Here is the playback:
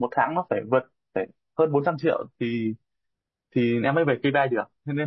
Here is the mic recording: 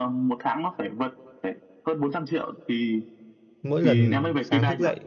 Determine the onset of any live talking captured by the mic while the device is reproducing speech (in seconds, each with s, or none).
3.6 s